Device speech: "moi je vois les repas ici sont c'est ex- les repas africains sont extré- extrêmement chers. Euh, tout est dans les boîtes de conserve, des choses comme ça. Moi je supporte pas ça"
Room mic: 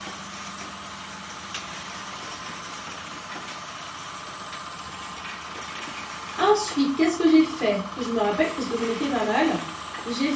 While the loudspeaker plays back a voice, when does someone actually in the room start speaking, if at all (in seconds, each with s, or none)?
6.4 s